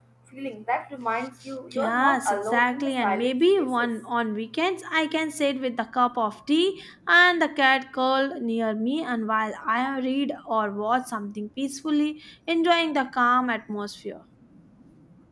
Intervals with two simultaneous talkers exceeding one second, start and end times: 1.7-3.9

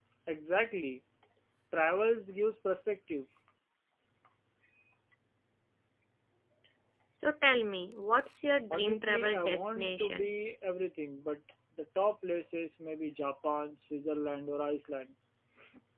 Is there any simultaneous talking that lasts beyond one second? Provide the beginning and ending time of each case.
8.7-10.3

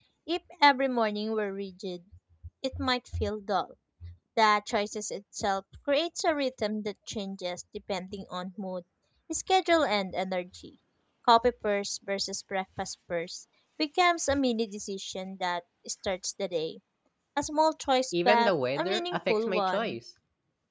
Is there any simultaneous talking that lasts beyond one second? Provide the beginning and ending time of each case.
18.1-20.0

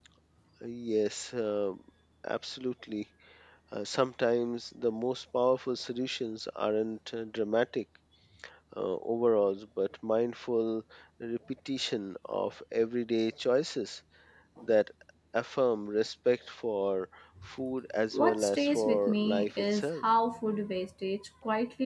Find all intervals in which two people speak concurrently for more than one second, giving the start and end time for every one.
18.1-20.0

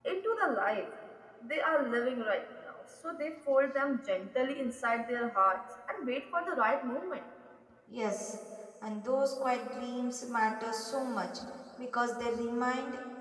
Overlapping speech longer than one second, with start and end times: none

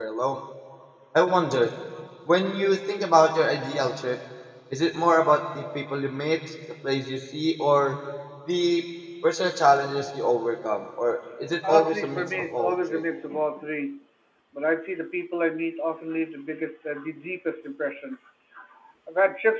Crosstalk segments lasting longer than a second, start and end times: 11.7-13.0

